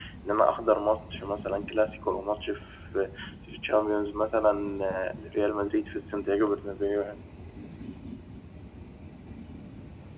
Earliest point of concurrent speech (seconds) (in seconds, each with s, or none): none